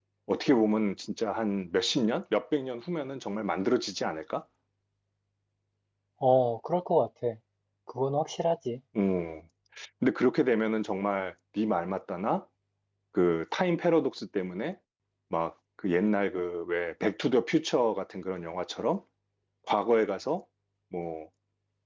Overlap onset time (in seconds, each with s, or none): none